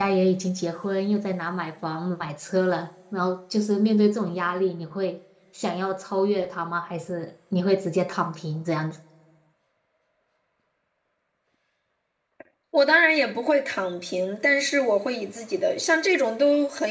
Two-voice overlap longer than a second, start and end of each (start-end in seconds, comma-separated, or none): none